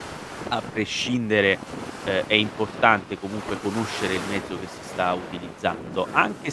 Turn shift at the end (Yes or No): No